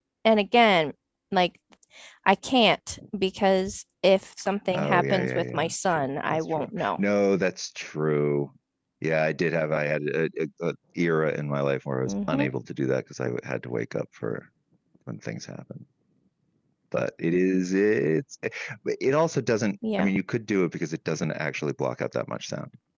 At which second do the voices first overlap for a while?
5 s

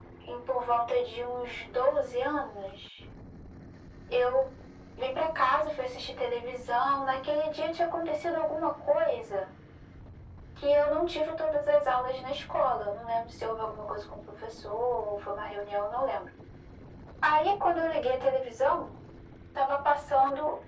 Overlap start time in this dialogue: none

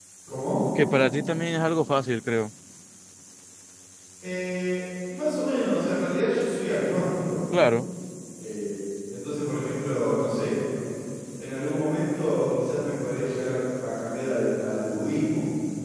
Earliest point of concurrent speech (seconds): none

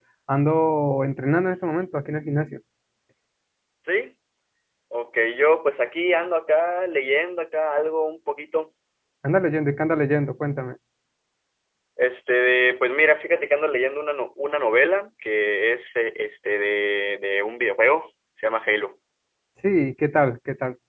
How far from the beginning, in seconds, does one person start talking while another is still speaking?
none

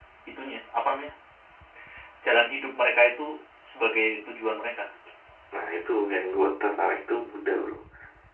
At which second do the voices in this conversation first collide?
none

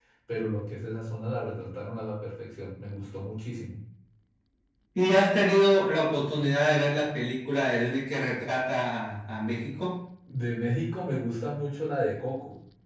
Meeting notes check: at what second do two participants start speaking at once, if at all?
none

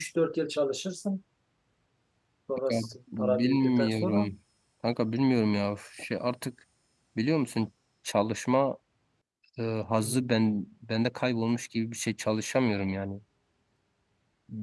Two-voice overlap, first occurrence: 3 s

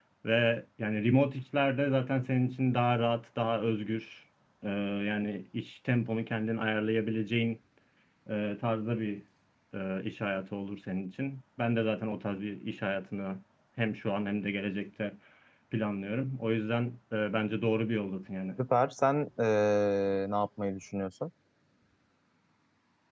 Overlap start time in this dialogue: none

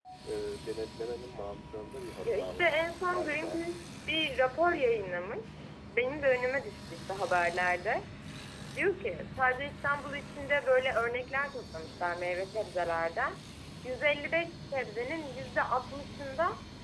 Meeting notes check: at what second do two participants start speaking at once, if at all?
2 s

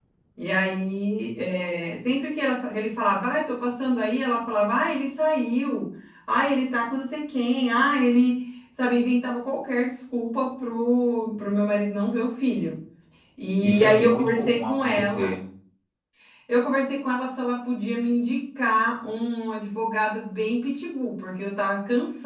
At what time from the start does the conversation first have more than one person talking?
14 s

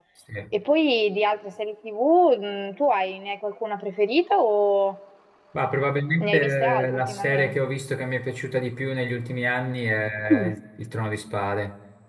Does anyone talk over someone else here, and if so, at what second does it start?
6 s

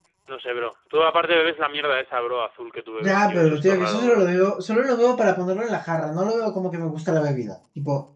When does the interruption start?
3 s

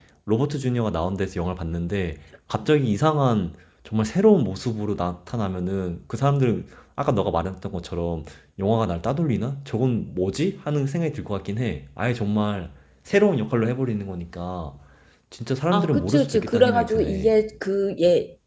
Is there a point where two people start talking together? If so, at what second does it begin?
16 s

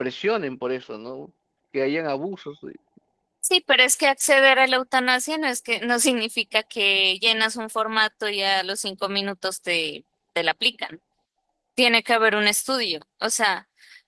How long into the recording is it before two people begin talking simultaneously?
none

